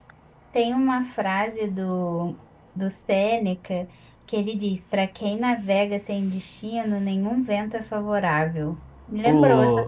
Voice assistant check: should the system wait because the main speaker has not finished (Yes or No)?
No